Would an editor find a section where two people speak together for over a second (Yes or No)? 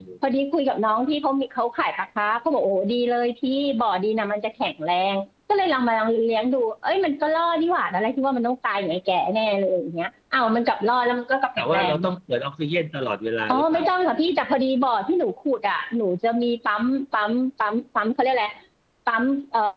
No